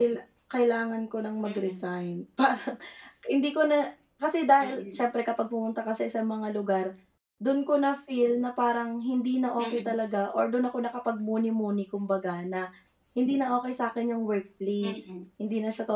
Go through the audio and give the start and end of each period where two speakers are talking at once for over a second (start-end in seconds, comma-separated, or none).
none